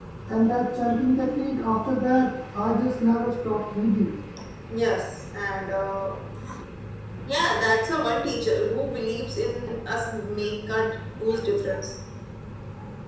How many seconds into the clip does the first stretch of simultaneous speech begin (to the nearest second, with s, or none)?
none